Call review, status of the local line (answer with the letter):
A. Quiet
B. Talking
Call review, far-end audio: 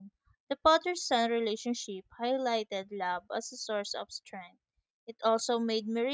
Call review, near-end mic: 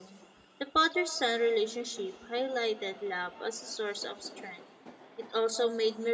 A